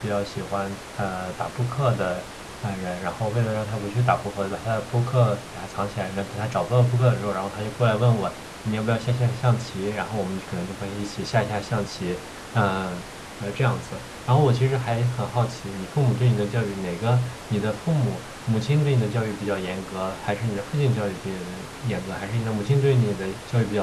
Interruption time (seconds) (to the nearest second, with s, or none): none